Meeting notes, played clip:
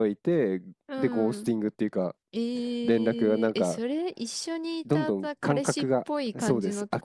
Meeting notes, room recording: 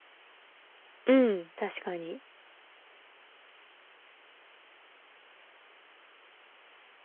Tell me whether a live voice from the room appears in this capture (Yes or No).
Yes